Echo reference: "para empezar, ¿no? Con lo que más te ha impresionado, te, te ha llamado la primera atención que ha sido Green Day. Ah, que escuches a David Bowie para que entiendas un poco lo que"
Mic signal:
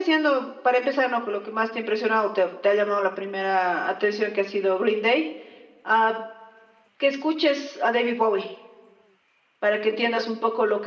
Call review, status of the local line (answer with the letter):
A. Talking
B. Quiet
B